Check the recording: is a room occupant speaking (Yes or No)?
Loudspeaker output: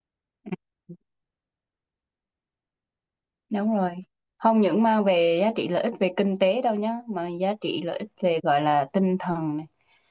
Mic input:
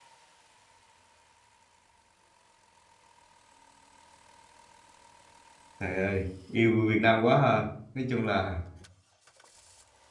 Yes